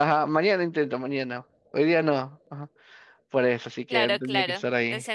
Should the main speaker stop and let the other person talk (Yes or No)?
Yes